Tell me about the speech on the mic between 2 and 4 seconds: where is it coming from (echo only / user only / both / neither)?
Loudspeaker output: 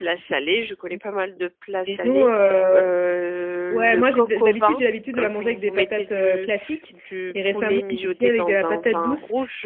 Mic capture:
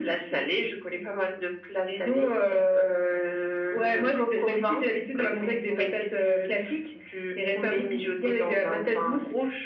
echo only